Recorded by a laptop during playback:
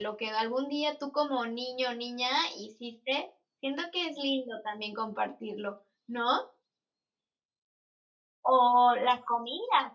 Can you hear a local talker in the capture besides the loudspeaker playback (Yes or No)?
Yes